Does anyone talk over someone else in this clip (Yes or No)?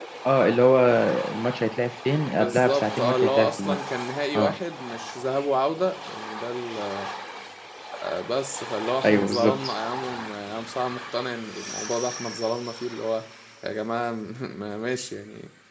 Yes